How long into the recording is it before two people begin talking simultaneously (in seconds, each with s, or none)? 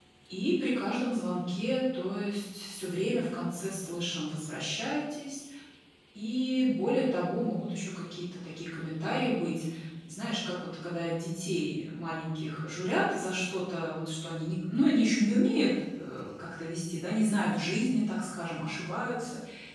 none